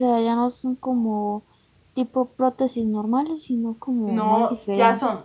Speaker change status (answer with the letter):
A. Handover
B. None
A